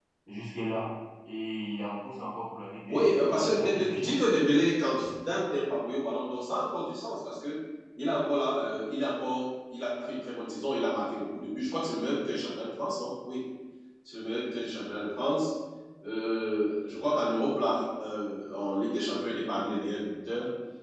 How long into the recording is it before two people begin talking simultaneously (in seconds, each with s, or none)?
2.9 s